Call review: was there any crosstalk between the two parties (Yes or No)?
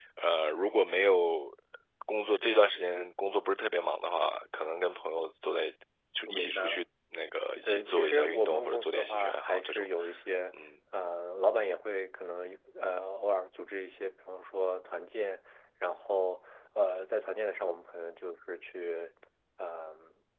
Yes